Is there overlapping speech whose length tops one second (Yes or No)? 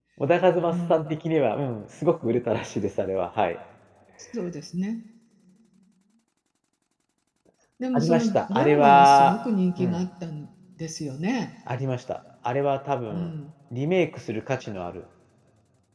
Yes